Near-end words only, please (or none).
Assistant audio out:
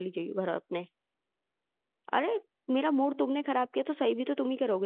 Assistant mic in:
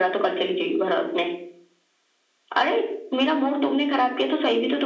none